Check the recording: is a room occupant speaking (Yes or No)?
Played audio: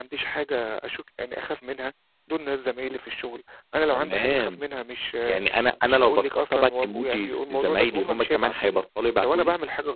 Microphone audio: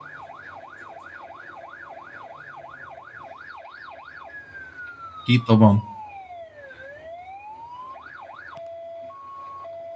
Yes